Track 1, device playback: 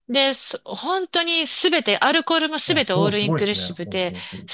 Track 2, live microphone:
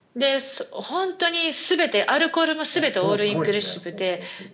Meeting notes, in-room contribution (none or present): present